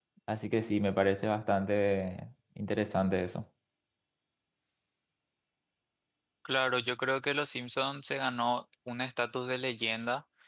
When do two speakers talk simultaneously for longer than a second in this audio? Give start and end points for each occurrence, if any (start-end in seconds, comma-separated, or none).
none